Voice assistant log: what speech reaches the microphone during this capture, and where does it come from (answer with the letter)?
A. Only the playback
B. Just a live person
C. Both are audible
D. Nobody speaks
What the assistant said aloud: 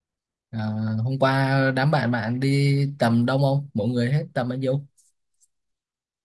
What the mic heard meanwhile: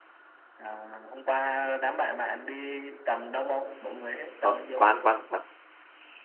C